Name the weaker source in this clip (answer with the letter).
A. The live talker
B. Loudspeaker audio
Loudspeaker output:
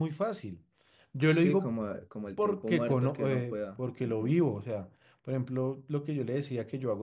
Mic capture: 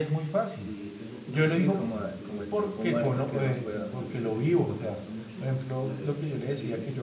A